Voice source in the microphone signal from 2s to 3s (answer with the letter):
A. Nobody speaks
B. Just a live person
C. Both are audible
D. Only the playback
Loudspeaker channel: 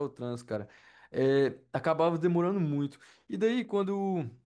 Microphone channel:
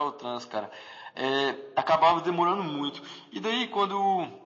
D